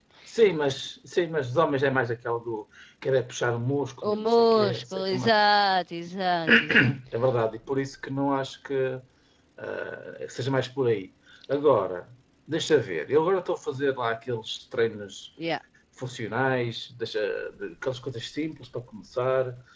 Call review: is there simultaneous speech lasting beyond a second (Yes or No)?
Yes